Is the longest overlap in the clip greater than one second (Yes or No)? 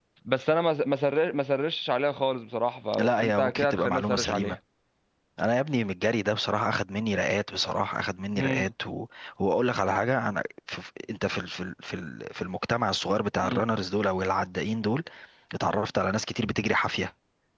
Yes